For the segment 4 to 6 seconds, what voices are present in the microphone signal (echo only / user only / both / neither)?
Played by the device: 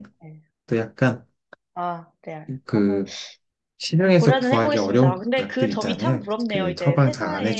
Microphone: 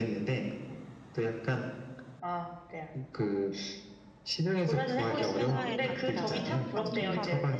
both